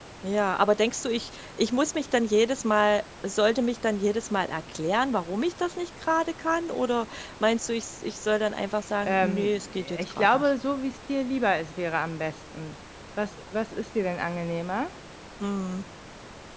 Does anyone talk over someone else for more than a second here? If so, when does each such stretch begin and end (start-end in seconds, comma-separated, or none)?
9.0-10.5